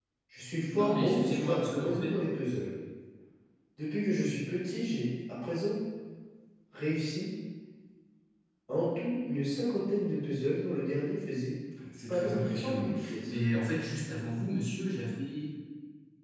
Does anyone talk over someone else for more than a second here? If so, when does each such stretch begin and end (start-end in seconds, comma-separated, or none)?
0.7-2.2, 12.1-13.3